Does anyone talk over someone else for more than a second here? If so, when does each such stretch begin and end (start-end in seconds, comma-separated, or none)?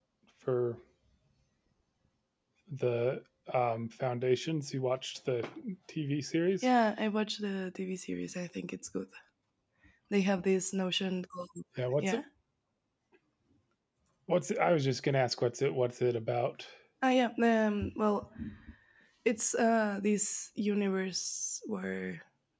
none